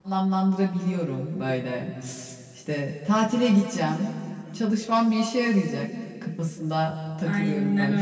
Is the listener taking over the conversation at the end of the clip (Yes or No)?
Yes